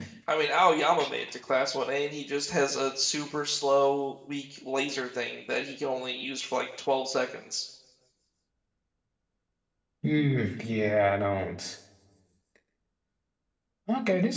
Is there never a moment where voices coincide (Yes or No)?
Yes